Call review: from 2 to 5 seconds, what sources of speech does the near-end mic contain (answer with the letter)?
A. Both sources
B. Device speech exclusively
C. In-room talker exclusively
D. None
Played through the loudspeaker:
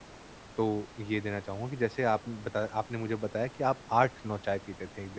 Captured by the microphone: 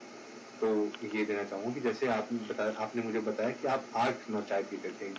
B